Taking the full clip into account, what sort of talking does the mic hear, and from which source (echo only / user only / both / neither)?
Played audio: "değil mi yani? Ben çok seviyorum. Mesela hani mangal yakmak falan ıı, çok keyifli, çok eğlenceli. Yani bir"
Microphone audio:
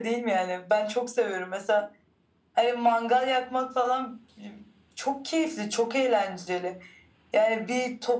echo only